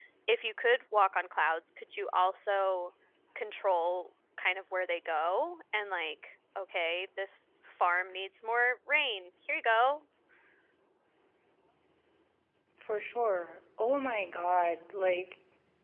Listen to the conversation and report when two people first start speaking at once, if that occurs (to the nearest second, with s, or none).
none